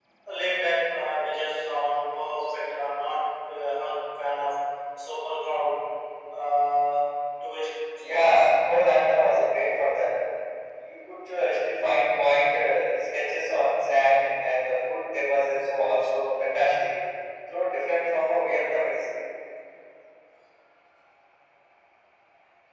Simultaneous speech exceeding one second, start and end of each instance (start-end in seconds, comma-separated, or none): none